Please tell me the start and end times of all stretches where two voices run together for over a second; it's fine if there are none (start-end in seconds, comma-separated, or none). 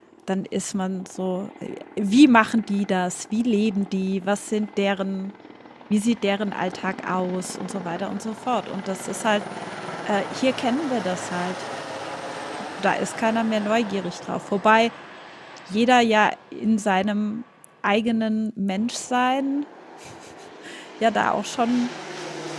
none